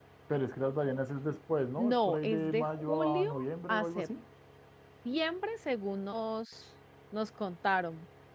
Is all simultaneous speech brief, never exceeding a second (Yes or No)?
No